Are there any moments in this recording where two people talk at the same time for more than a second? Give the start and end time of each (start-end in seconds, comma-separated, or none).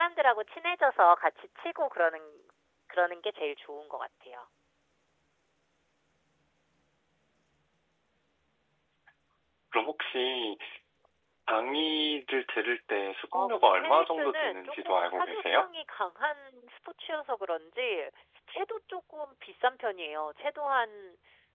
13.3-15.7